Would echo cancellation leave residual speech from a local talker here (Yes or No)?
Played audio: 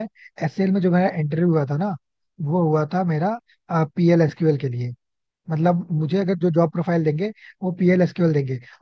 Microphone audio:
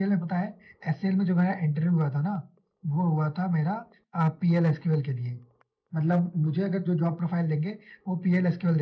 No